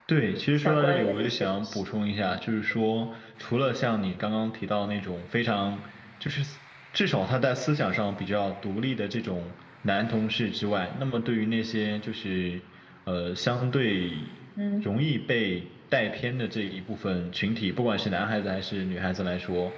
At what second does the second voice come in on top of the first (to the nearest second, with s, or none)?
1 s